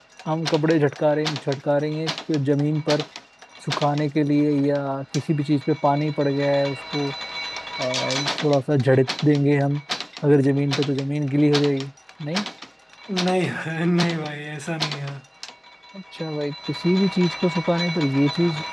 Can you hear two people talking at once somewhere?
No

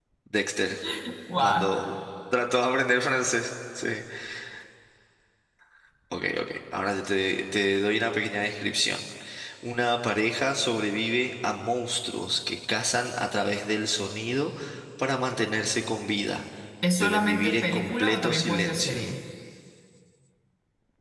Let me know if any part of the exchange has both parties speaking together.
Yes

